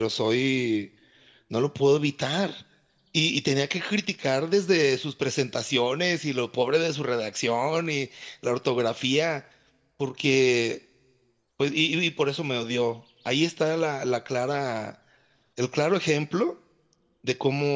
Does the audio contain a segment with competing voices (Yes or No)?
No